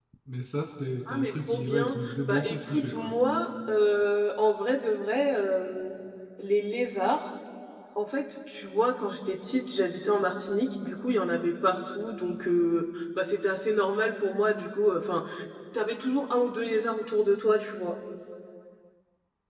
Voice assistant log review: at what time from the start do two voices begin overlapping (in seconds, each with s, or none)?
1.1 s